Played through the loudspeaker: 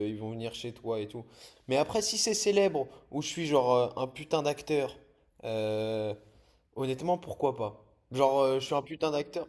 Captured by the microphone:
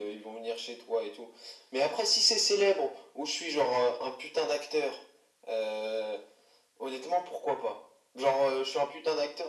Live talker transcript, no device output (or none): none